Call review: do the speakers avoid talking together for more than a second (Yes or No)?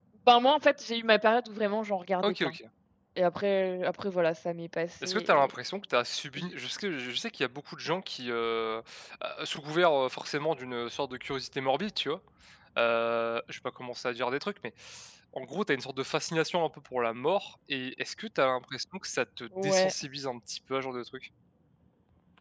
Yes